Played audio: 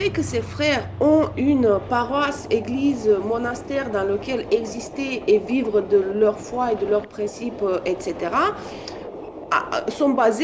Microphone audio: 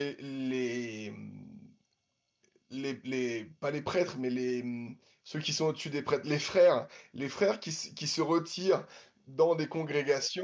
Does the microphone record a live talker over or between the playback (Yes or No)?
Yes